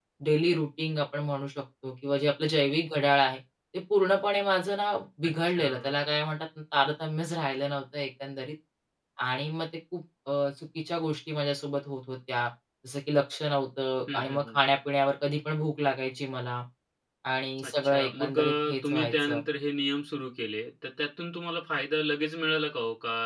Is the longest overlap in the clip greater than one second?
Yes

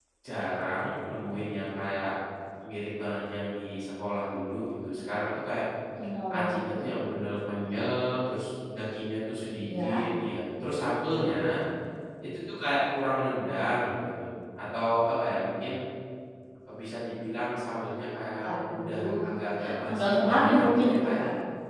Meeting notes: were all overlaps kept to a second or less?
No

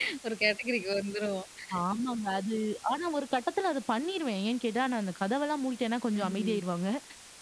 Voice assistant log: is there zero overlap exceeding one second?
Yes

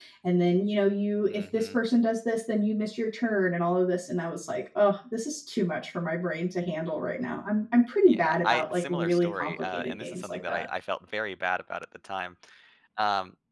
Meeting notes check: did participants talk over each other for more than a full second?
Yes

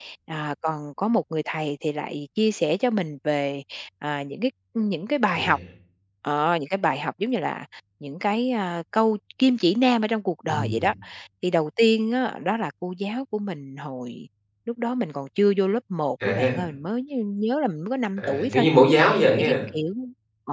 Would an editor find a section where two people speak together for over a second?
No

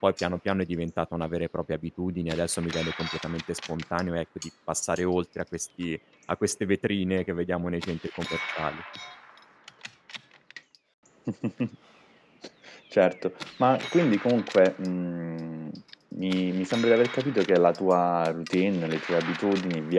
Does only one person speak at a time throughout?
Yes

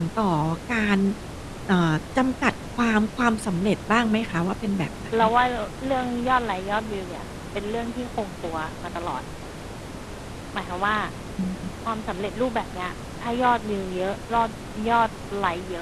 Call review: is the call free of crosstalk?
Yes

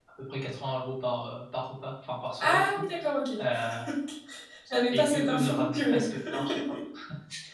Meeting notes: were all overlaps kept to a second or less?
No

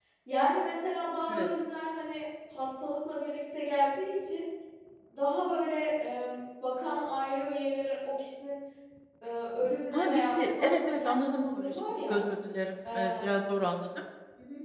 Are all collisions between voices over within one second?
No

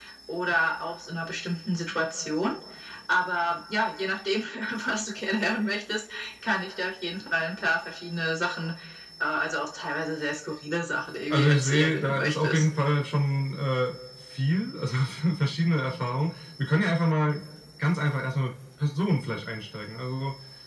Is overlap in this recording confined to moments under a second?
No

